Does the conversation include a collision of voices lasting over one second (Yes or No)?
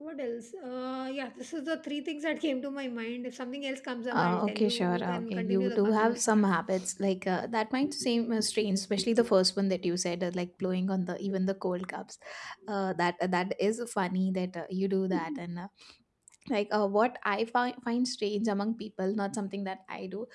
Yes